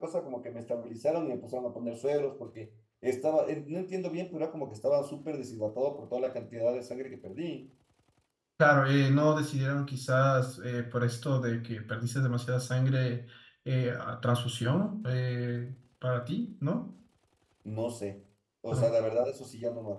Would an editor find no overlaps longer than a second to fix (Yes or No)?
Yes